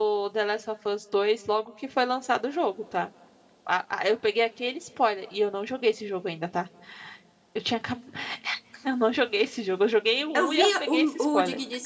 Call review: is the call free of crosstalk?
No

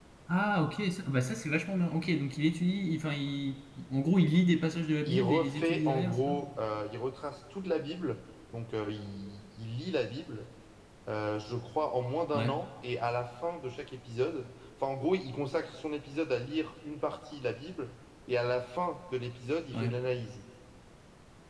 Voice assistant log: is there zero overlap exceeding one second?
No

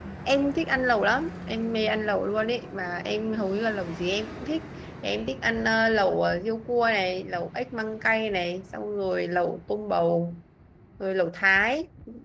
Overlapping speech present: No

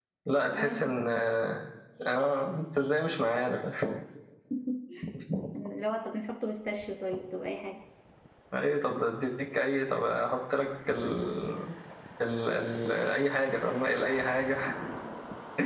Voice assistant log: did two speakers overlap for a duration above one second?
No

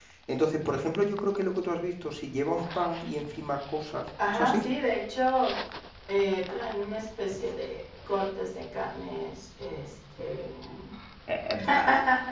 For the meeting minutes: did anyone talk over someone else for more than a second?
No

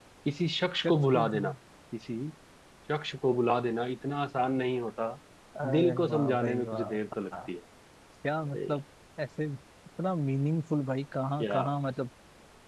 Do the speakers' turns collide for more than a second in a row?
Yes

